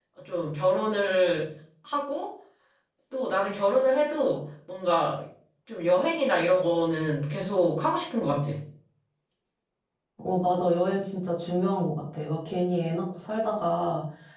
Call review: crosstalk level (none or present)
none